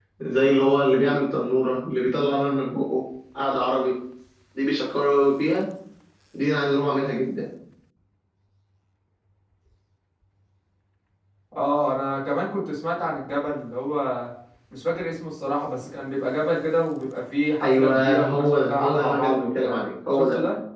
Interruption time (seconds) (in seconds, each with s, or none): 17.6 s